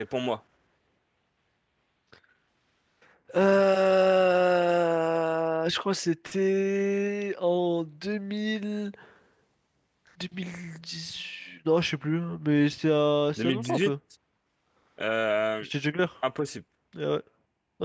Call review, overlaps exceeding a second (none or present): none